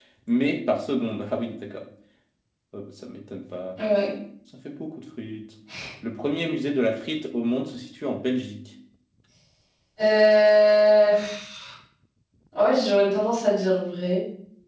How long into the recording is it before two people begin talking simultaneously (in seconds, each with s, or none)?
none